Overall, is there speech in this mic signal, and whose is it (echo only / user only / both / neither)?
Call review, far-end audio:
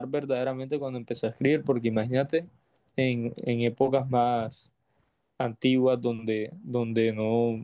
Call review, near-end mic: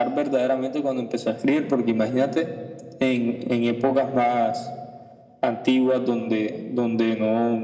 echo only